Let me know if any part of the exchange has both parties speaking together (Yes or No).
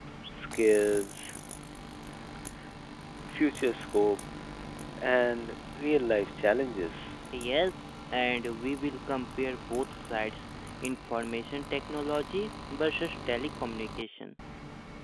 No